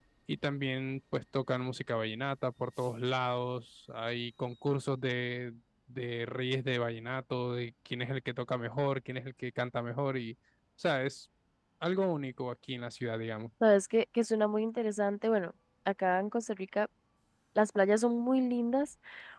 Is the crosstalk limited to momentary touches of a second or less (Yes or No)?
Yes